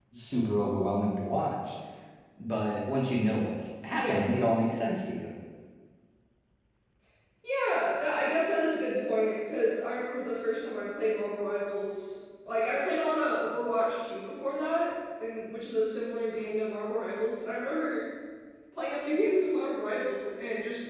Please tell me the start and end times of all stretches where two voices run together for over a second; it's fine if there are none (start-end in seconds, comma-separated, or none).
none